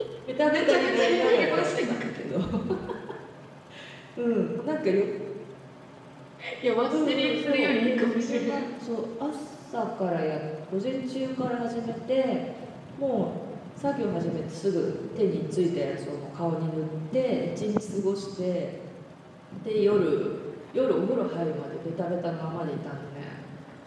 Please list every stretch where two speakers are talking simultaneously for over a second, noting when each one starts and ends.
0.5-2.0, 6.9-8.6

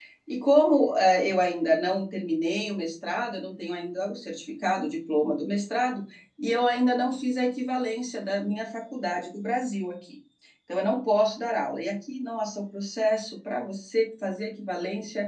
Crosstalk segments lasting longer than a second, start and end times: none

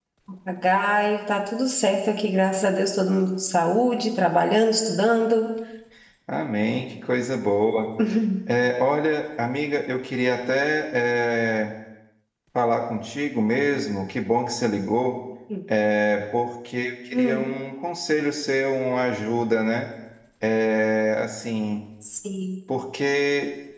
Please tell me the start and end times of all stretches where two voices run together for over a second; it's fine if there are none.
none

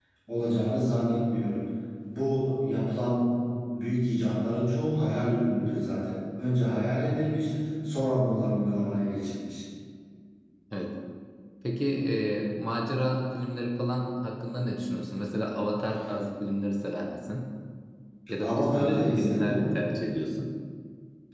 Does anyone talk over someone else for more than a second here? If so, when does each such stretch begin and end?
18.4-19.7

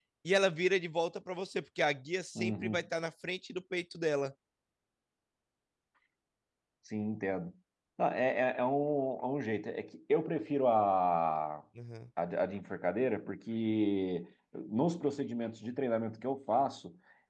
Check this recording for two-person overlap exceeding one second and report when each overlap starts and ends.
none

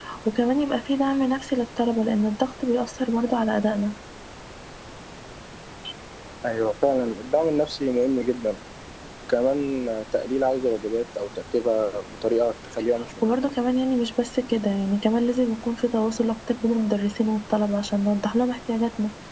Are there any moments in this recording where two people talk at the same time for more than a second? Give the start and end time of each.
none

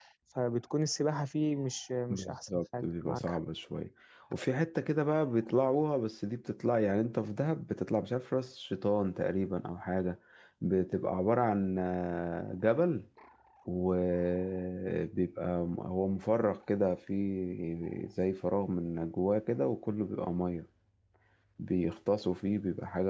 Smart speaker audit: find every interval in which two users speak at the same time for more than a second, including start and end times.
2.1-3.4

